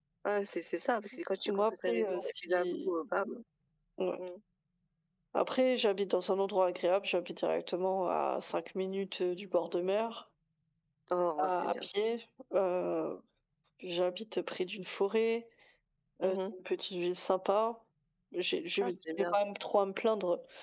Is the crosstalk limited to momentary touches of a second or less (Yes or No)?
No